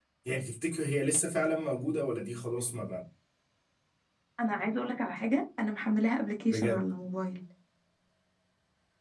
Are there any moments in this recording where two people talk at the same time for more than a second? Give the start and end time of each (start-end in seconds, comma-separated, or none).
none